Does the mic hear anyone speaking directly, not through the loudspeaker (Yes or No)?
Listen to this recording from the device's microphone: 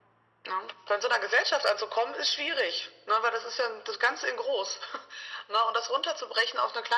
No